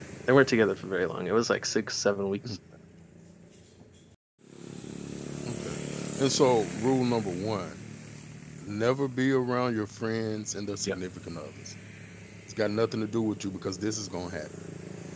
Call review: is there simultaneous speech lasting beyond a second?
No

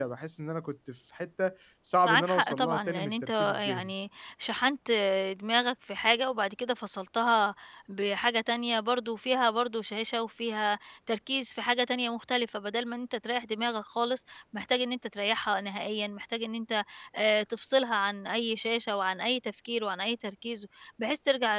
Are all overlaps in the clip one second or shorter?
No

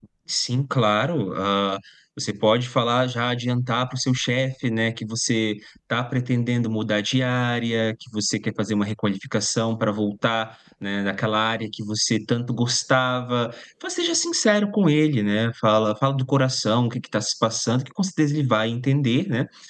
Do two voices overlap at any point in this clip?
No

